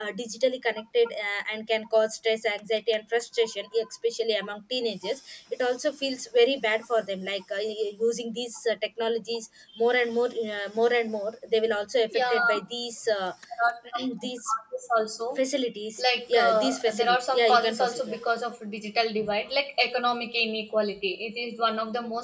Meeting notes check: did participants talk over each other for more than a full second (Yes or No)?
Yes